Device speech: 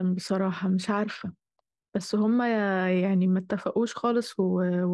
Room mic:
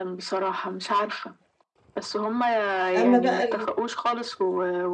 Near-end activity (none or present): present